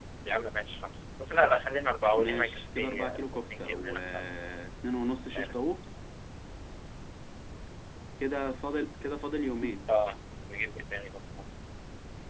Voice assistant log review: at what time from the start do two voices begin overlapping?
2 s

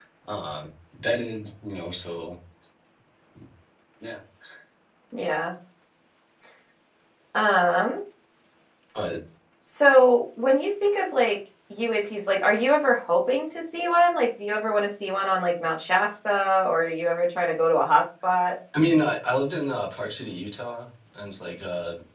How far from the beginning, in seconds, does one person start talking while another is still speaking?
none

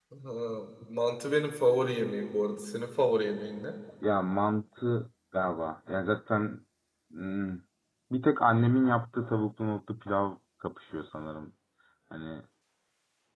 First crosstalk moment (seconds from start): none

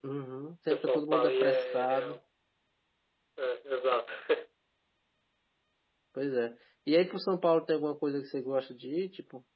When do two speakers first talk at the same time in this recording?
1 s

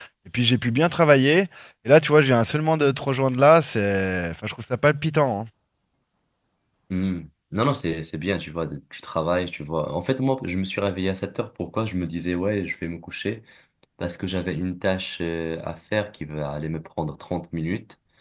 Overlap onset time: none

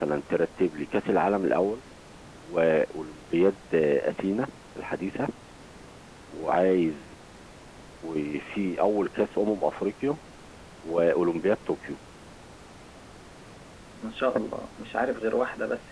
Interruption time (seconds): none

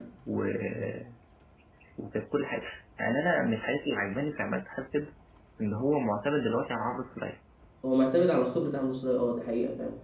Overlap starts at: none

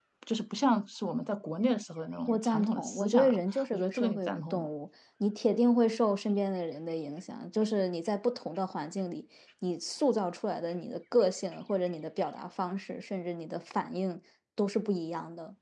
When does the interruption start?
2 s

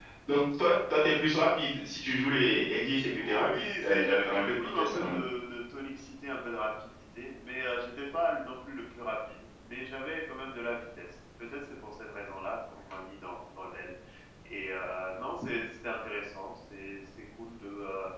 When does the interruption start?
3 s

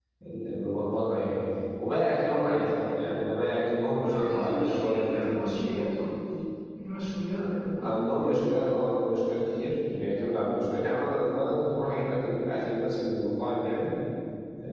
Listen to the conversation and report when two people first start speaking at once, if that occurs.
4 s

